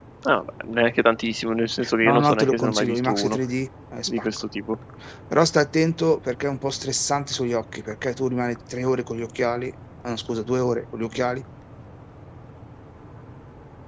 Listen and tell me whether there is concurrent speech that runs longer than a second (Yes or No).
Yes